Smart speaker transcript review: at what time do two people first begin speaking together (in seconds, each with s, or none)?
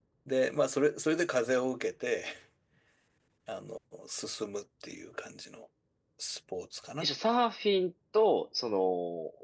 none